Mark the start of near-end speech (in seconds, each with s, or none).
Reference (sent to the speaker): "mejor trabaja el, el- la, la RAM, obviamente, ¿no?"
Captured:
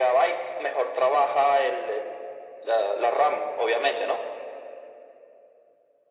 none